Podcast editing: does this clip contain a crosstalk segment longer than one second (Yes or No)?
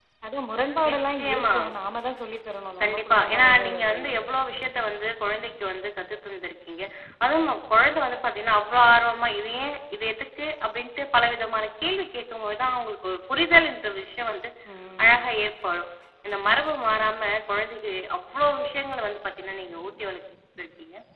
Yes